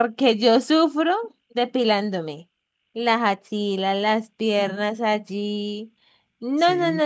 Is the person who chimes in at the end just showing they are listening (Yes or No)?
Yes